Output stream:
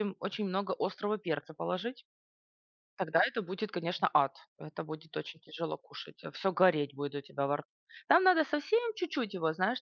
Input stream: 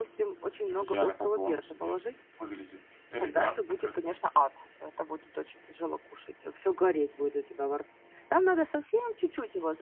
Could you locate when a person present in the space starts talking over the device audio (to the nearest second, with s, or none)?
1 s